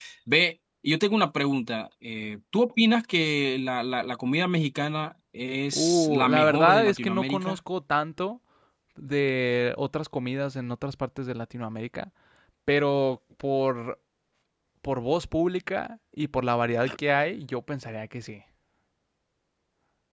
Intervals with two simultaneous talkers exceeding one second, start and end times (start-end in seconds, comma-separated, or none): 5.7-7.6